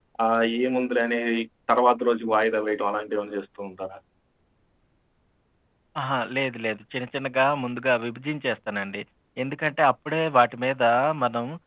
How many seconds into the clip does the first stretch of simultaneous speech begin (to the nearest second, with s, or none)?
none